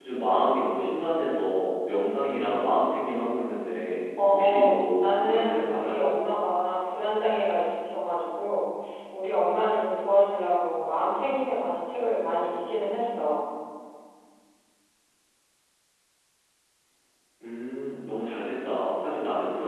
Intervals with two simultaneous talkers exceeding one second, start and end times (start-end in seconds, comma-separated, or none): 4.3-6.0